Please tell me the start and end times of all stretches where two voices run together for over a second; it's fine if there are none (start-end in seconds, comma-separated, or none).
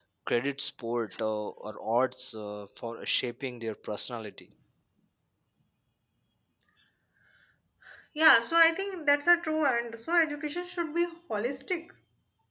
none